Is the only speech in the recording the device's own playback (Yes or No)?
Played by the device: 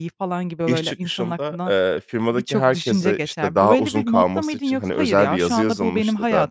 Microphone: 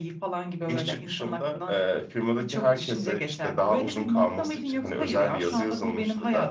Yes